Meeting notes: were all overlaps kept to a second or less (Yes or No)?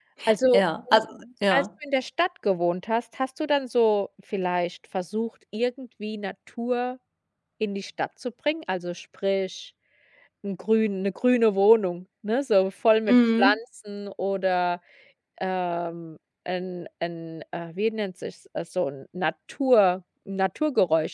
Yes